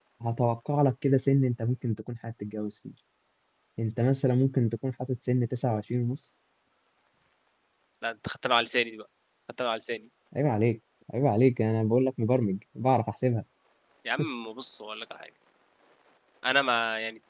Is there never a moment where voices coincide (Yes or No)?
Yes